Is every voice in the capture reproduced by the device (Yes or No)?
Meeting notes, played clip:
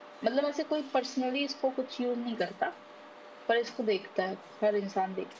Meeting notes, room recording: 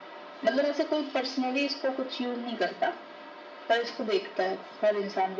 Yes